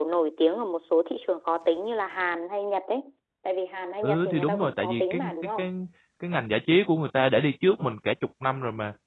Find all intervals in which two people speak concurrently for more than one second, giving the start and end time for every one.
4.0-5.7

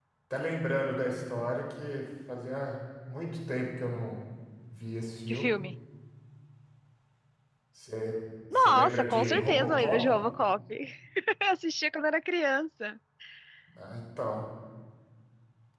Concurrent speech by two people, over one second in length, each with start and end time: 8.6-10.2

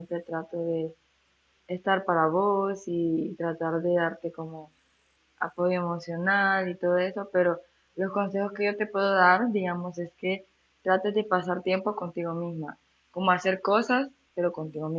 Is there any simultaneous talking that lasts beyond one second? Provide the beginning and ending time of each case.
none

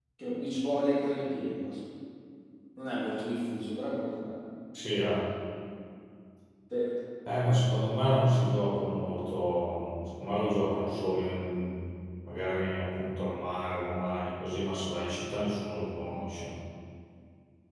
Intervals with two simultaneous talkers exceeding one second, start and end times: none

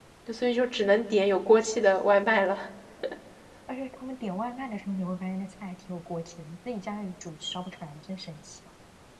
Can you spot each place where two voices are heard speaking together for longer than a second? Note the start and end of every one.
none

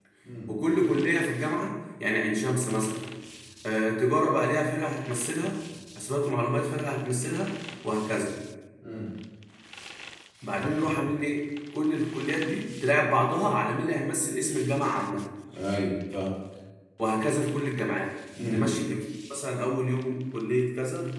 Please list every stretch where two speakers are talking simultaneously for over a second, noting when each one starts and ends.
none

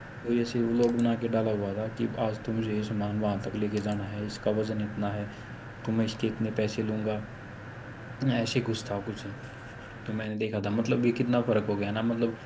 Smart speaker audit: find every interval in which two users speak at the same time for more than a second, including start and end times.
none

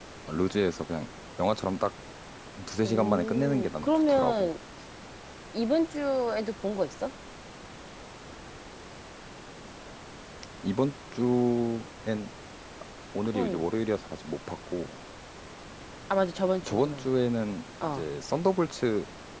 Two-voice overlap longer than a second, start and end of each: 2.8-4.5

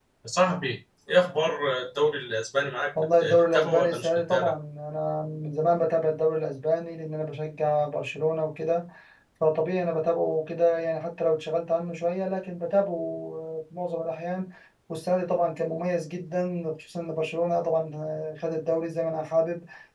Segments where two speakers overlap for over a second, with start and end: 3.2-4.5

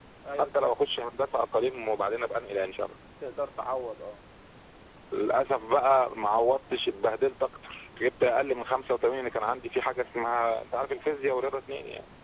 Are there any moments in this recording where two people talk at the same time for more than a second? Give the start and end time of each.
none

